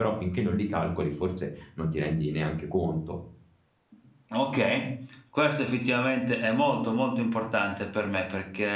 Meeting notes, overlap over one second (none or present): none